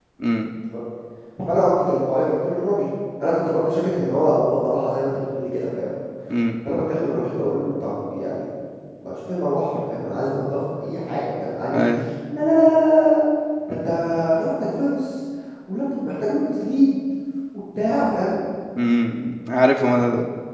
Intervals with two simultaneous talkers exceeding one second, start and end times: none

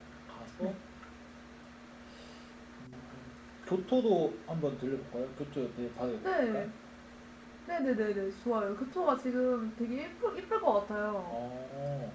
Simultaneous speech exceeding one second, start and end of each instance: none

